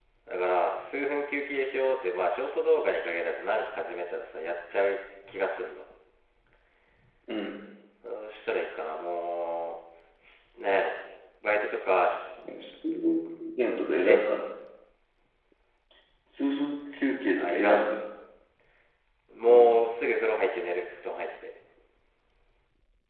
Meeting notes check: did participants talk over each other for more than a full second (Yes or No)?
No